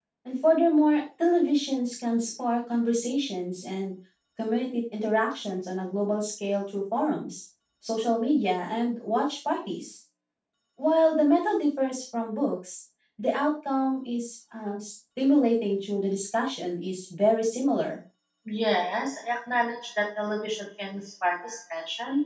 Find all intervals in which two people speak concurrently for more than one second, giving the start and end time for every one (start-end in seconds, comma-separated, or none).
none